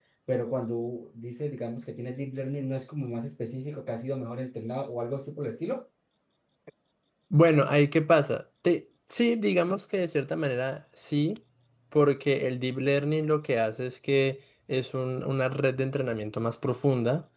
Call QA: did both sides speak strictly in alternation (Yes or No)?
Yes